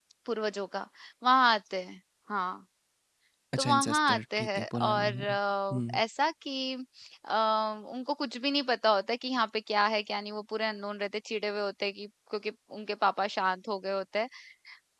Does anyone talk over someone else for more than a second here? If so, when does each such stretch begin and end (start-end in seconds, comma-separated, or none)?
3.6-5.4